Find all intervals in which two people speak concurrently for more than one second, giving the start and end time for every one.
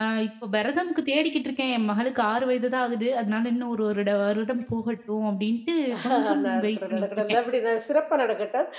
6.0-7.4

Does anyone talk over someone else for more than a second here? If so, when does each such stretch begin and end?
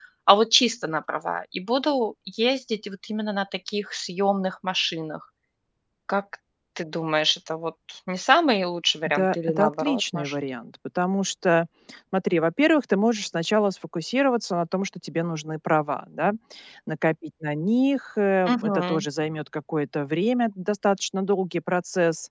9.1-10.3

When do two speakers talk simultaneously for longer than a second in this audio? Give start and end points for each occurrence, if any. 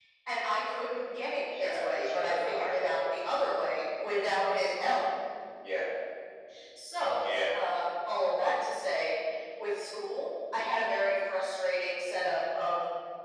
1.5-3.0

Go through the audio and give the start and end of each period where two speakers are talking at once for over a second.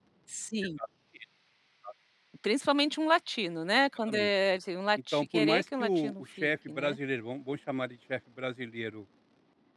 5.1-7.0

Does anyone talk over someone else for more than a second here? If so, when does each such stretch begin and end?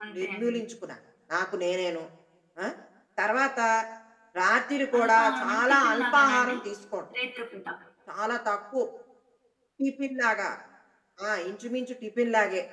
5.0-6.5

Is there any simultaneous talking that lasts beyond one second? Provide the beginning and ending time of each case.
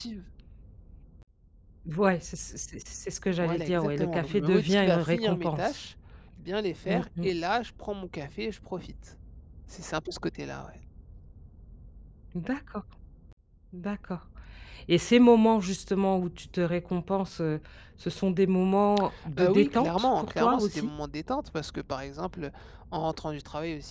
3.3-5.7, 19.4-20.9

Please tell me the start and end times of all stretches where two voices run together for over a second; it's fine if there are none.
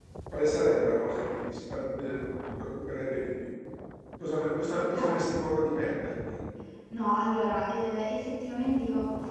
none

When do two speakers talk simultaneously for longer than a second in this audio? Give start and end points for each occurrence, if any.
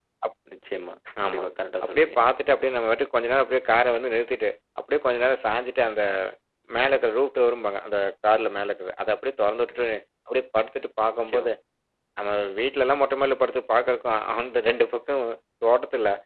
none

